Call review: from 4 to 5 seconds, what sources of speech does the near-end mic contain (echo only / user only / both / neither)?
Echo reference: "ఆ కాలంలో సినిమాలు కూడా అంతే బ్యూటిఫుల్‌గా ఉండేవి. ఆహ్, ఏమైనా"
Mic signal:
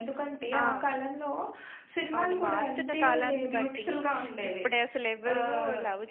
both